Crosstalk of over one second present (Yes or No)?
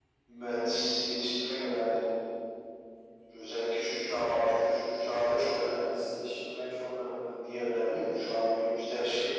No